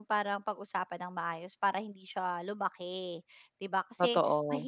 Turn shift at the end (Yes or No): No